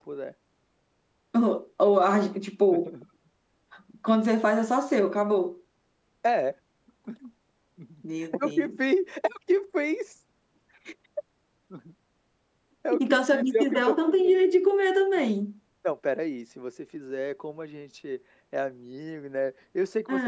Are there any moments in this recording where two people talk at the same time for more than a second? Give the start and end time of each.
13.0-14.4

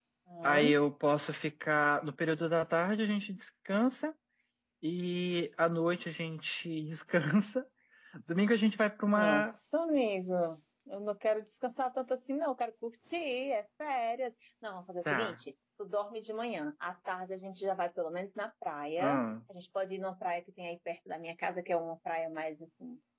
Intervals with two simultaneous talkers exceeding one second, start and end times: none

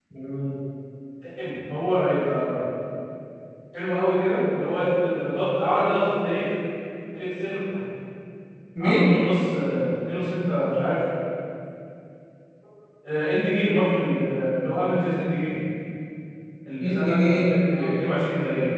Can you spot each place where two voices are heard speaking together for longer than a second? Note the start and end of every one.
16.8-18.1

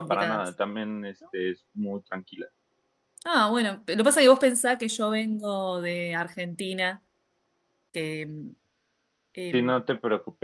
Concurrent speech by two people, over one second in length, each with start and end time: none

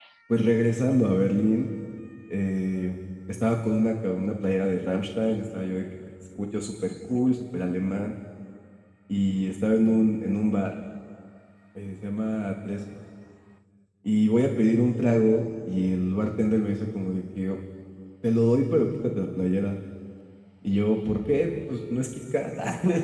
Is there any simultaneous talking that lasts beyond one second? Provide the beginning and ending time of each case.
none

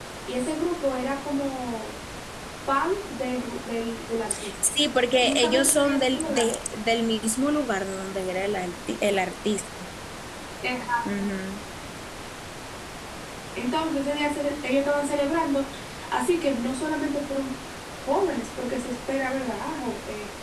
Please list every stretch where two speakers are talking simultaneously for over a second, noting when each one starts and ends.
5.2-6.6

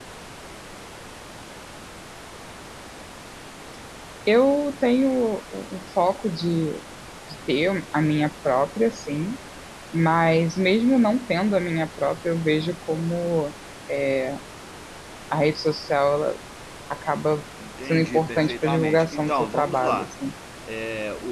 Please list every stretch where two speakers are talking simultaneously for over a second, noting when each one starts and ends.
17.8-20.1

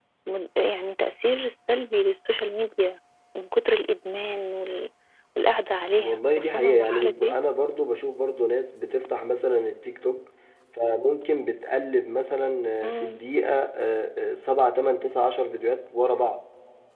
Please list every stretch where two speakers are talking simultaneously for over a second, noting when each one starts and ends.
6.0-7.3

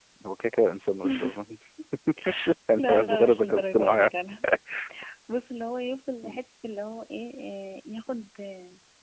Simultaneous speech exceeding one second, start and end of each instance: 2.8-4.1

